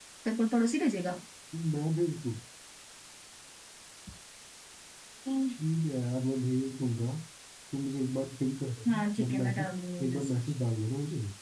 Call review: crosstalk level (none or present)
present